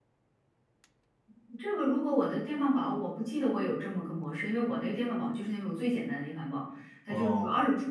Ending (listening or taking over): listening